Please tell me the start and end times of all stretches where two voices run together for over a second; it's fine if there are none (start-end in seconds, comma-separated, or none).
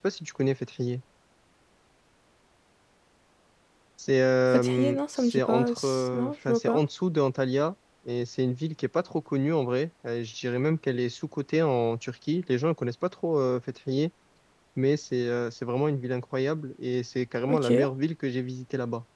4.5-6.8